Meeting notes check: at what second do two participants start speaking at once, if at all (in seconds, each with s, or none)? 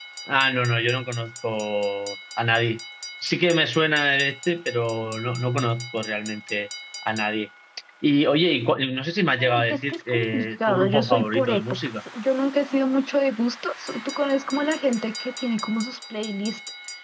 9.4 s